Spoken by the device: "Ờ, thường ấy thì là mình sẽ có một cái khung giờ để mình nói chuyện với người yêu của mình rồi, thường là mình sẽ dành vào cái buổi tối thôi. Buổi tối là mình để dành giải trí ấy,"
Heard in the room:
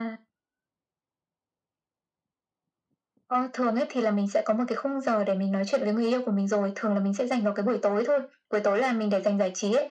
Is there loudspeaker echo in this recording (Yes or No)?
Yes